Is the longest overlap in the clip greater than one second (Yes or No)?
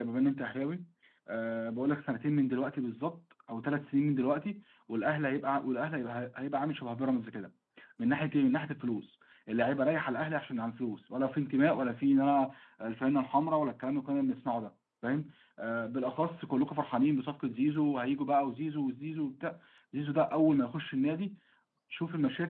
No